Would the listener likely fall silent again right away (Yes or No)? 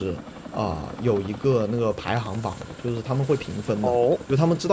Yes